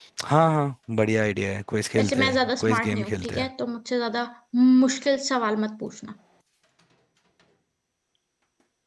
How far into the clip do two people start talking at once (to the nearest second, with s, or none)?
2 s